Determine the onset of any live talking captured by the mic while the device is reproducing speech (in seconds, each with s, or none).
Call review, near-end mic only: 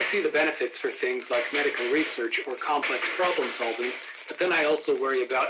none